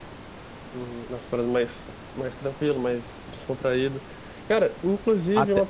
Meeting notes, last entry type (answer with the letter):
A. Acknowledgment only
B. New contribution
A